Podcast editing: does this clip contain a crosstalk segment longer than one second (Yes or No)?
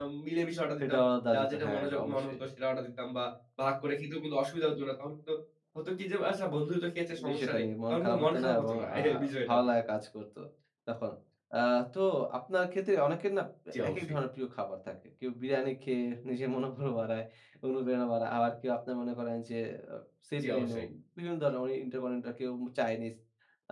Yes